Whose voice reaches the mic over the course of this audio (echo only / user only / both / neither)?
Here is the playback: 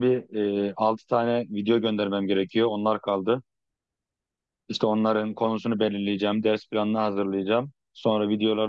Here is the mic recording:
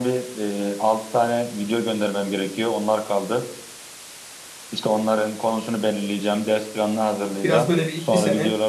both